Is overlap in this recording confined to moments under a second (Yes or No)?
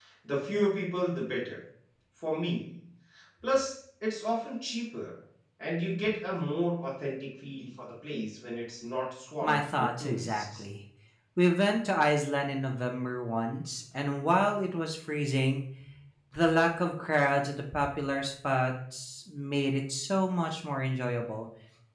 No